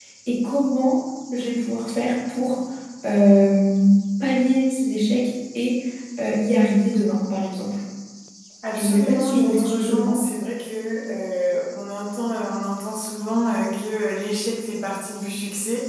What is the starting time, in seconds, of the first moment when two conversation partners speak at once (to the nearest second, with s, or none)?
9 s